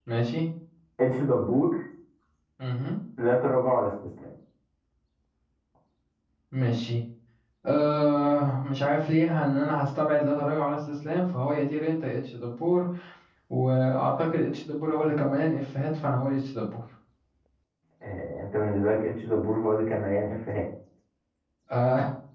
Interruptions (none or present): none